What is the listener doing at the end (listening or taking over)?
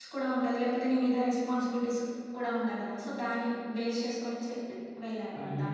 taking over